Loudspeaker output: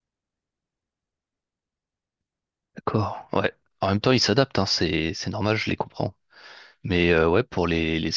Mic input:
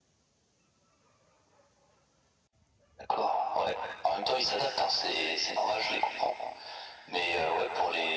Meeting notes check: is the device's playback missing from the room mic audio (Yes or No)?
No